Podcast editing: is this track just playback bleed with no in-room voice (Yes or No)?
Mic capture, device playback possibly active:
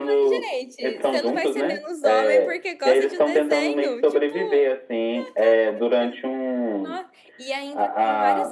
No